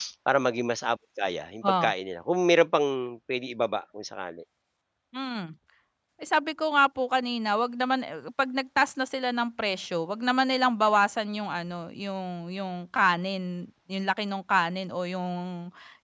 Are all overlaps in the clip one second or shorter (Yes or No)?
Yes